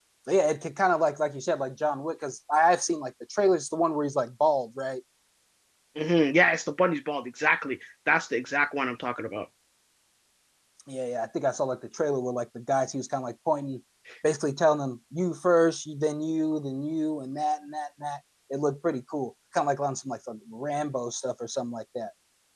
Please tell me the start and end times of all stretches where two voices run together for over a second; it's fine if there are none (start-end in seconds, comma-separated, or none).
none